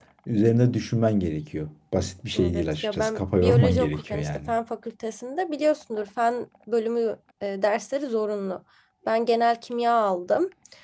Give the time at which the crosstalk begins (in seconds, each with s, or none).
2.4 s